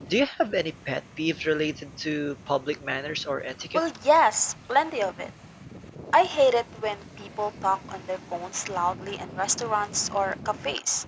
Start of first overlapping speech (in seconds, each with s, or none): none